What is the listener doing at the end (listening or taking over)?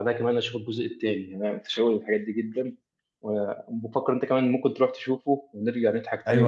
taking over